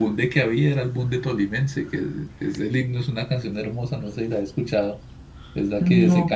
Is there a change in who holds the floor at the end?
No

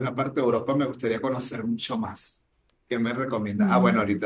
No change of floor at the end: Yes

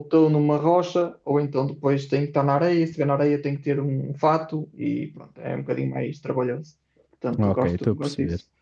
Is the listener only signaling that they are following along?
No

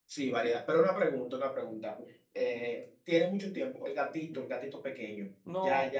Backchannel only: No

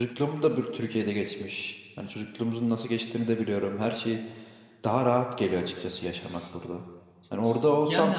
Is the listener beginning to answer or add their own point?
No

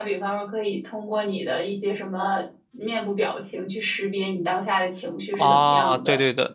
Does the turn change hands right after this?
Yes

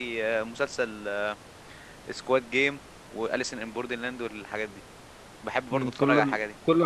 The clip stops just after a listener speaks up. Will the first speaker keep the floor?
No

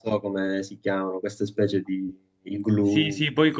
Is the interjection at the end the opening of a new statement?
Yes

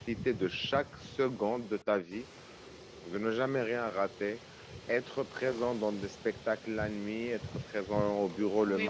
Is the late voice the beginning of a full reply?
Yes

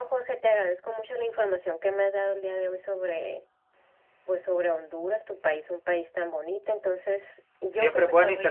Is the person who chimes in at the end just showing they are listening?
No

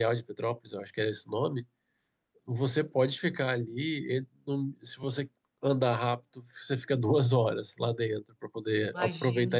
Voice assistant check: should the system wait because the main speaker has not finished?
Yes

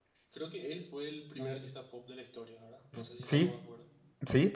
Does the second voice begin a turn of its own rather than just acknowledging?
Yes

